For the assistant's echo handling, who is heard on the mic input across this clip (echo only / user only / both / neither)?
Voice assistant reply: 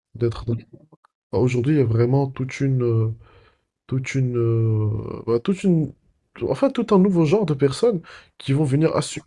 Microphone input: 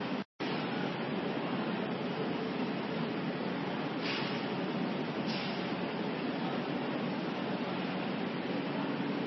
neither